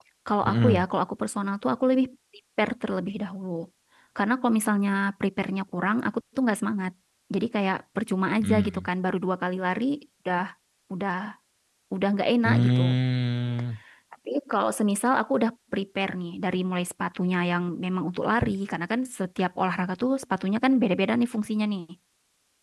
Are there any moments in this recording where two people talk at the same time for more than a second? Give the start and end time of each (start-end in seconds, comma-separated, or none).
none